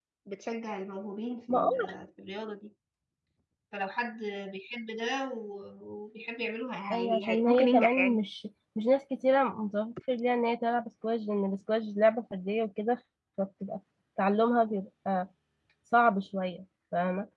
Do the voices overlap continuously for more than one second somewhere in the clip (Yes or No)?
Yes